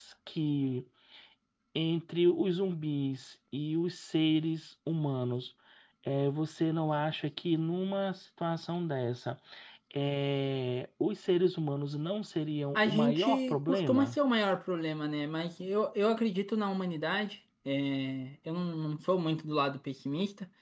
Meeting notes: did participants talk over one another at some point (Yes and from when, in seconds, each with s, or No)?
Yes, from 12.7 s